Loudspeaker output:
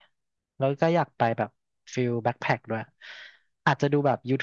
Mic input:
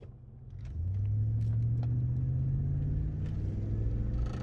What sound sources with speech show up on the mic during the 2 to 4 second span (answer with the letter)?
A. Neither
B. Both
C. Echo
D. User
A